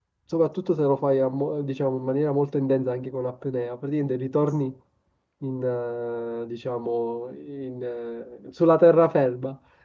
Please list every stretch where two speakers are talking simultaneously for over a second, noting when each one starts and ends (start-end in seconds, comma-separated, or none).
none